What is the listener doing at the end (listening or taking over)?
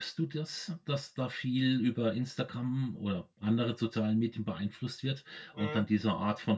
listening